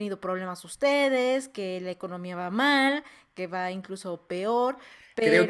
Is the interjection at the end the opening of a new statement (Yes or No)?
Yes